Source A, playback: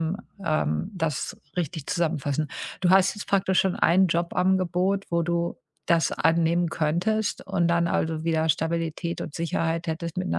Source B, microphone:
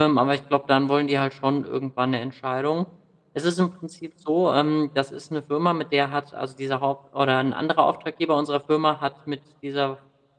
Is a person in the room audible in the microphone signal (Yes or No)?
Yes